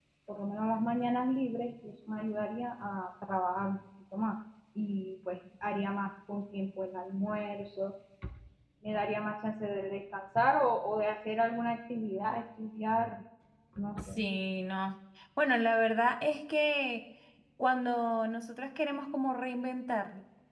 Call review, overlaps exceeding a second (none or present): none